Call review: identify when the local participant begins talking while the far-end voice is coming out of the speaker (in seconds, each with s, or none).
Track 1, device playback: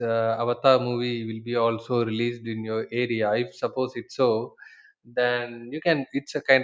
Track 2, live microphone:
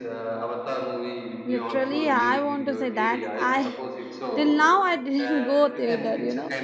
1.4 s